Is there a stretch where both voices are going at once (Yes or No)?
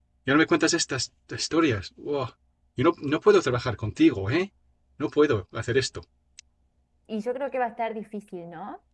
No